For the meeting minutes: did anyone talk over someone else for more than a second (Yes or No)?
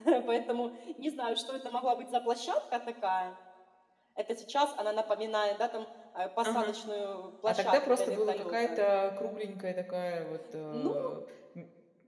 Yes